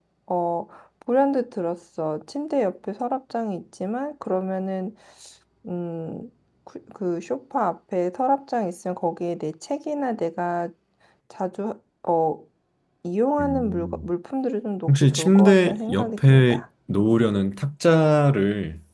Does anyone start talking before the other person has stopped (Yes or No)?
Yes